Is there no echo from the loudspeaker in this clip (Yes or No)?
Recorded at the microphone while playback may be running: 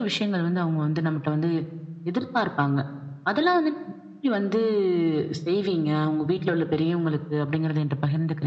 No